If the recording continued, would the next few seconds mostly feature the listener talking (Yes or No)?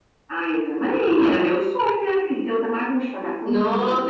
Yes